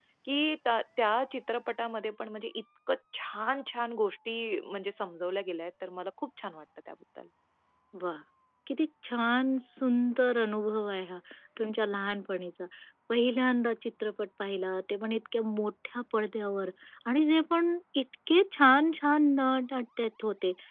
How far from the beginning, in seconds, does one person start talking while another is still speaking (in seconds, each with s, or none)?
none